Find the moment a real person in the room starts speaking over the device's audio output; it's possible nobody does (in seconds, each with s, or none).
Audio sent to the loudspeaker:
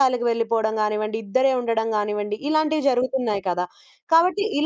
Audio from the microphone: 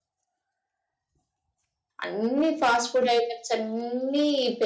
2.0 s